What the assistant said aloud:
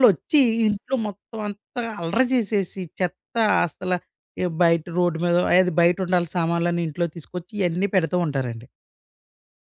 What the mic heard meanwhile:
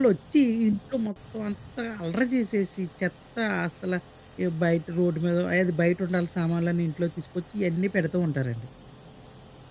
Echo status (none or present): present